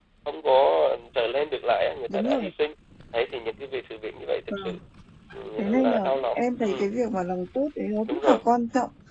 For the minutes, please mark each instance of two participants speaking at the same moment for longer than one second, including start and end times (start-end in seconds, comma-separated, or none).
5.6-6.9